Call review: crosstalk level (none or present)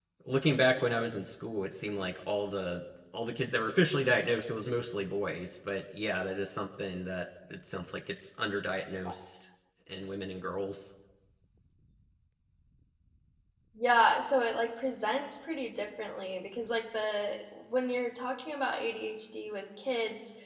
none